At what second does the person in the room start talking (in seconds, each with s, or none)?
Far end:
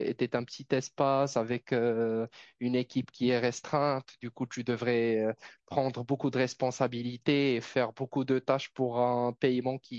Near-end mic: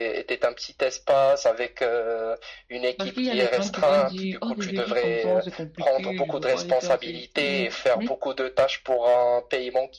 3.0 s